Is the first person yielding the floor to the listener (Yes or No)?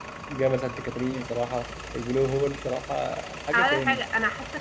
Yes